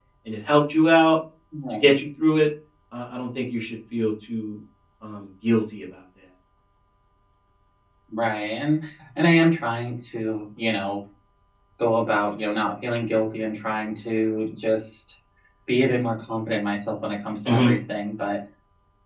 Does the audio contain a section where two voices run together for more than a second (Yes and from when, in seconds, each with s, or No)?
No